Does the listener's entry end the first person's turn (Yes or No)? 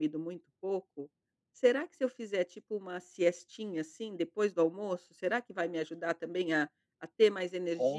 Yes